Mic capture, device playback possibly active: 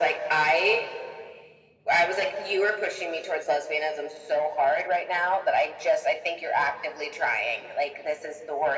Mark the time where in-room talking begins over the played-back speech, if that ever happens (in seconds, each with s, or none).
none